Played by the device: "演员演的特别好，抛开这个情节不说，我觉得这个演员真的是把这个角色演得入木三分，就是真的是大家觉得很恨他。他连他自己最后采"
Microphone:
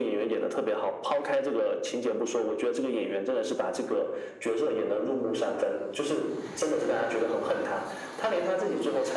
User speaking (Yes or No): No